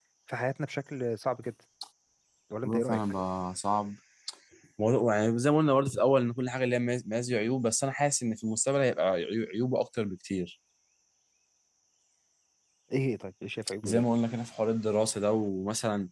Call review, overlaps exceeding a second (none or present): none